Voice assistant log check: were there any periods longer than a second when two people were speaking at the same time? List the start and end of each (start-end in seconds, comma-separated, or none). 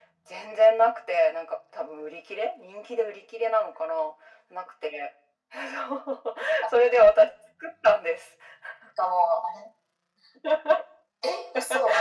none